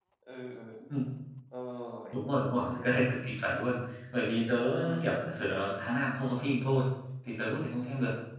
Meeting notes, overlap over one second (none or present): none